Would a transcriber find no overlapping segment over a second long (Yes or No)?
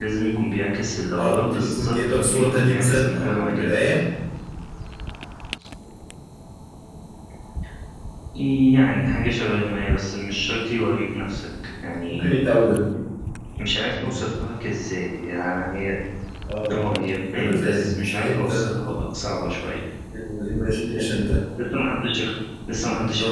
No